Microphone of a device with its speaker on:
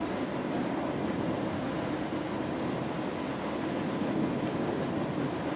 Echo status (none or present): none